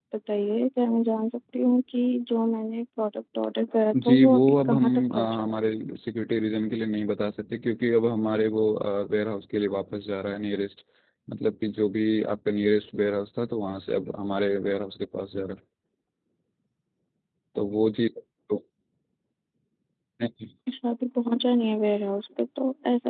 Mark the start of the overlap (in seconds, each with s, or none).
3.9 s